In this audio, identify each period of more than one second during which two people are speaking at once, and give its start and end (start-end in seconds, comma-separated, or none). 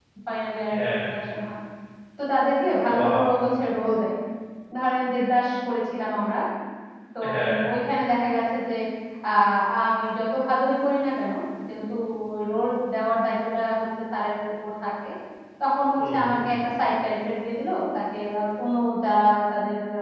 none